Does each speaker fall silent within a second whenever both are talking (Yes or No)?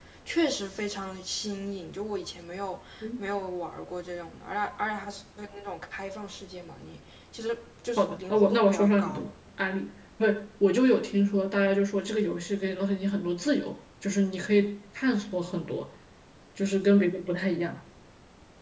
No